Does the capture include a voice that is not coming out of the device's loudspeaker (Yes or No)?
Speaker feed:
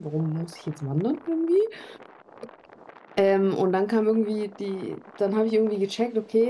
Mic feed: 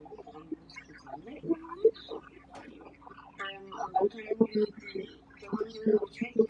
No